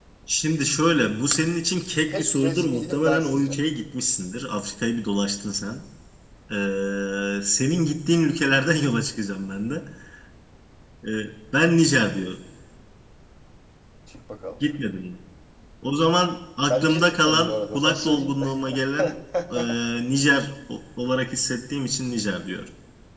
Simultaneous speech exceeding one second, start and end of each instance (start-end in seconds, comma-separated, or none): 2.1-3.5, 16.7-18.3